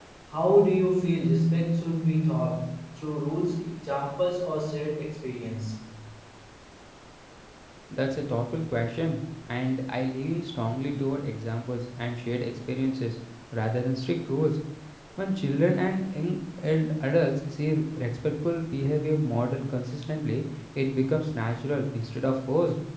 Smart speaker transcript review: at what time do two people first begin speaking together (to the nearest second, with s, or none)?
none